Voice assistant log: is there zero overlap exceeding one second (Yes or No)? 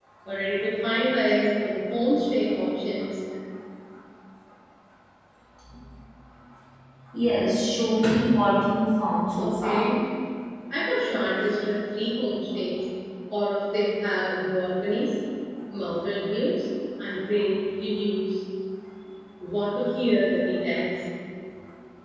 Yes